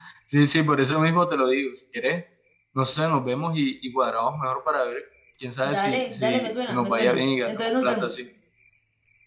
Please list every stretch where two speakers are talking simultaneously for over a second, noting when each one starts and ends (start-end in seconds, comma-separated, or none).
5.6-8.1